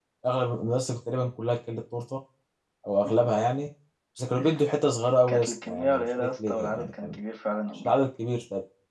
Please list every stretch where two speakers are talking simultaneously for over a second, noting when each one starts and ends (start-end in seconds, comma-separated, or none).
5.3-7.2